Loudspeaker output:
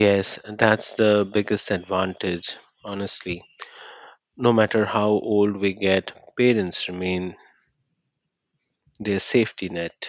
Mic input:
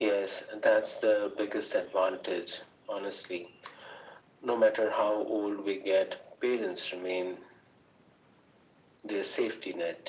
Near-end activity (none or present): none